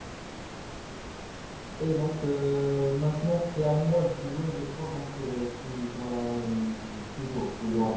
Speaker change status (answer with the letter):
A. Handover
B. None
B